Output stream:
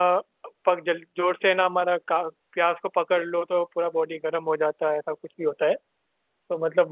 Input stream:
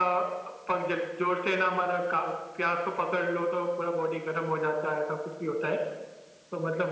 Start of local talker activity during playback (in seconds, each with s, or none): none